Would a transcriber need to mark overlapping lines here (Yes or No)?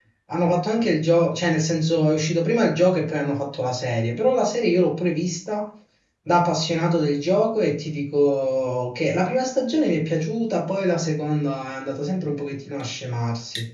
No